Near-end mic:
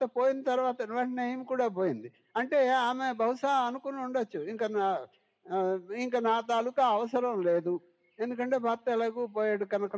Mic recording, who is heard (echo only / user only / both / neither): echo only